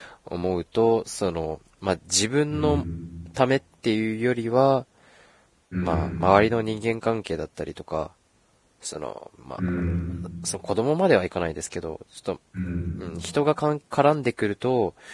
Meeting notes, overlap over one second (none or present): none